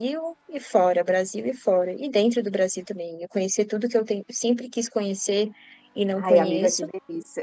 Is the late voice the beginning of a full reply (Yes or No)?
Yes